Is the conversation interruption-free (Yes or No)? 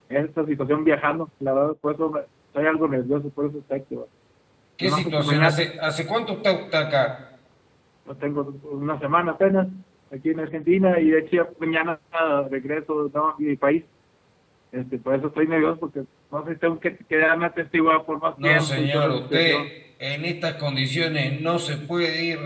No